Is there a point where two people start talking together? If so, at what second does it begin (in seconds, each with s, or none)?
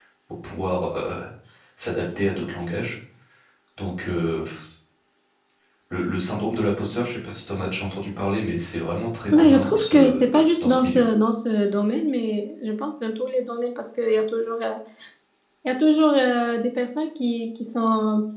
9.3 s